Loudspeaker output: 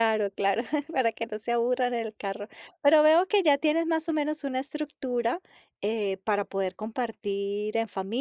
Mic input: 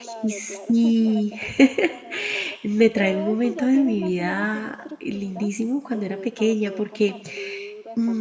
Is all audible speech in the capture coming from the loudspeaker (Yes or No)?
No